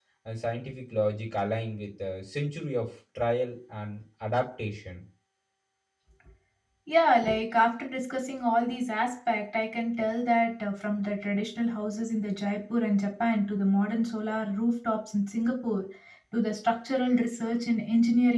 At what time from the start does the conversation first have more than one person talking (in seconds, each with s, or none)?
none